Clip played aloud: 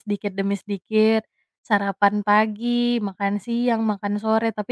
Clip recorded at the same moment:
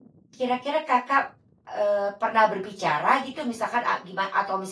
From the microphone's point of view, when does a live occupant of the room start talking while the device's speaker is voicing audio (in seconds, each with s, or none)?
0.3 s